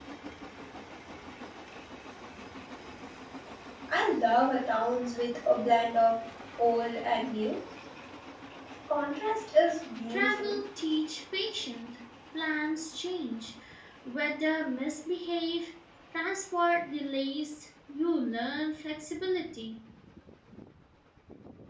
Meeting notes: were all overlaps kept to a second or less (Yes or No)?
Yes